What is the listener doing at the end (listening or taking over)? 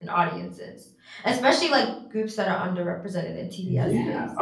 taking over